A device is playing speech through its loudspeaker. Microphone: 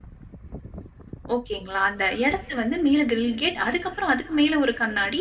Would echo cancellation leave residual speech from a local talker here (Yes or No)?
Yes